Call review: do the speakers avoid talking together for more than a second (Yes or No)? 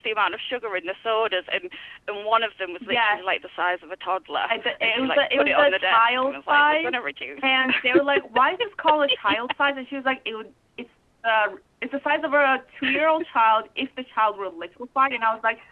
No